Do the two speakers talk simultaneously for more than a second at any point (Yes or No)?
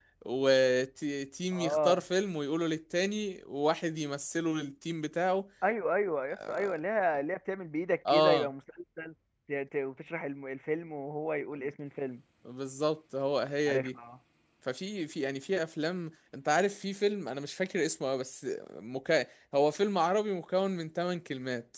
No